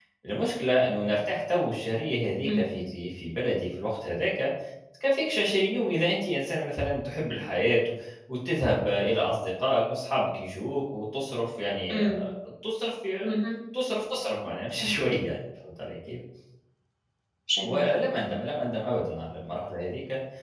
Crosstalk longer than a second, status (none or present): none